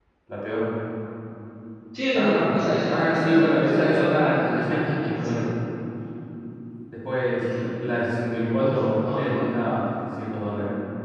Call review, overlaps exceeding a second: present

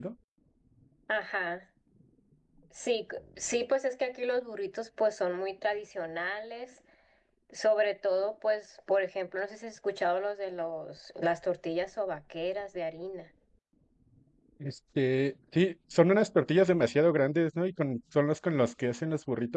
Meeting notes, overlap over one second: none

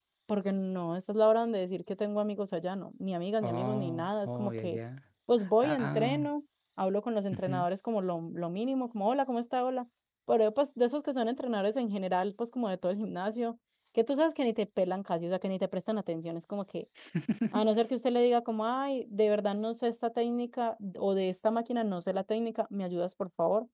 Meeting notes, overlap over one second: present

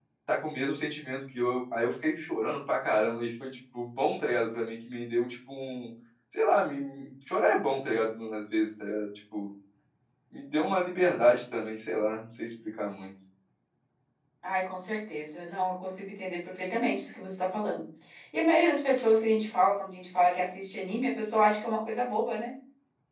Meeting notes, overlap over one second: none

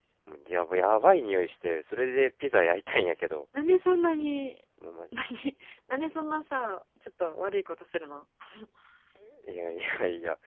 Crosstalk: none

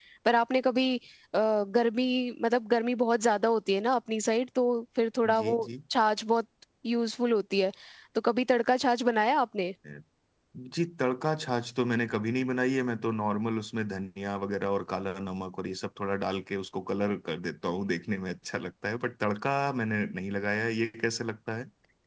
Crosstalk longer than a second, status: none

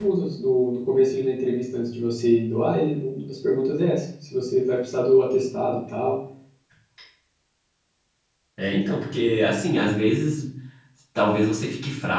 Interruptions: none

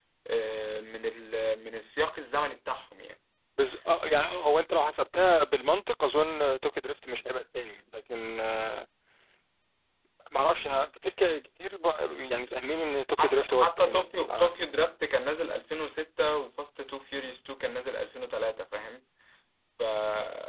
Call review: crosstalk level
present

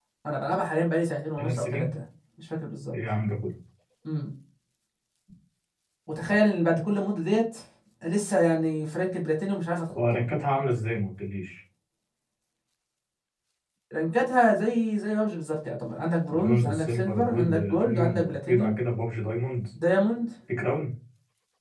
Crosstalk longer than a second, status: present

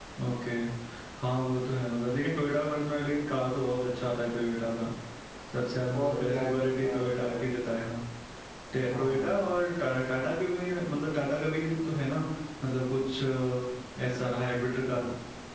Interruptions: present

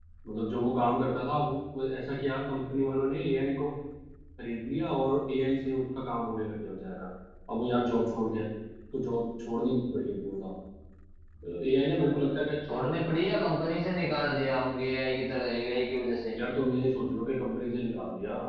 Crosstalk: none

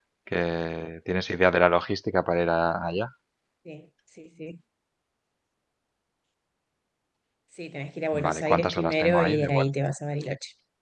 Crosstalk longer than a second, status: present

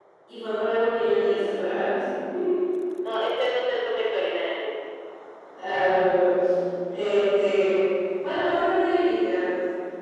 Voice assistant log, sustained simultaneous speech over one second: none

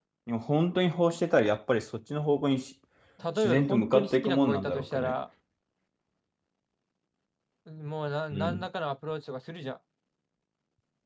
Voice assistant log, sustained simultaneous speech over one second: present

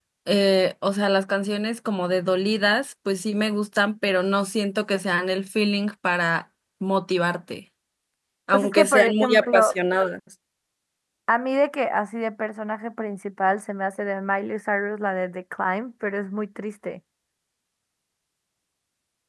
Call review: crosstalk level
present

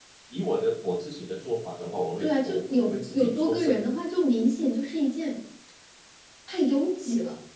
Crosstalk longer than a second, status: present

